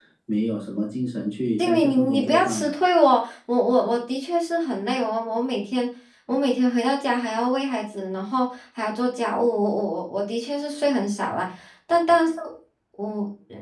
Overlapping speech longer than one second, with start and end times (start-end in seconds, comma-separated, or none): 1.6-2.8